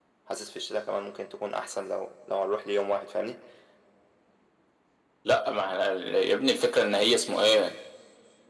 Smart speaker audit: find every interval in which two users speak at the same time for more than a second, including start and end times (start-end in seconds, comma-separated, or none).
none